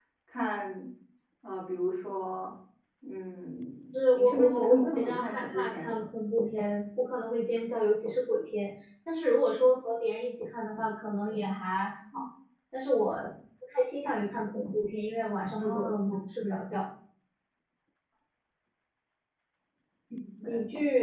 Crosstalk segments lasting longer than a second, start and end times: 4.2-5.9

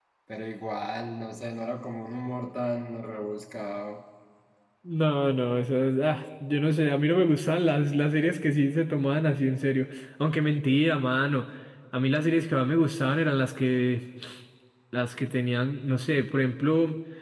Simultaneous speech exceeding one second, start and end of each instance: none

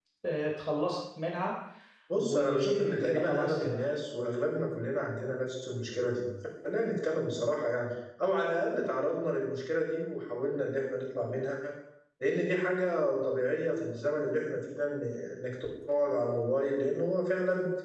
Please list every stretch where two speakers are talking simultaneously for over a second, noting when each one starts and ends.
2.2-3.8

